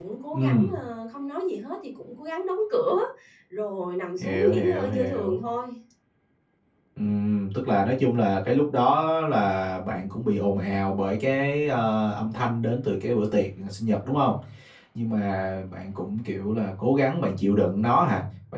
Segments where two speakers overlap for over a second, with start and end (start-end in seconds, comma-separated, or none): 4.2-5.4